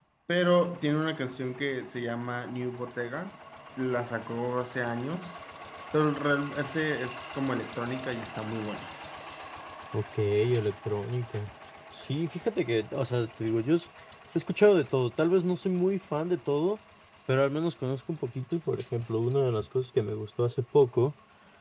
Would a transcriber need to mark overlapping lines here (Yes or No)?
No